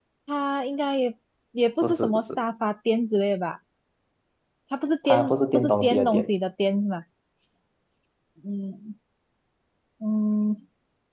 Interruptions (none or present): present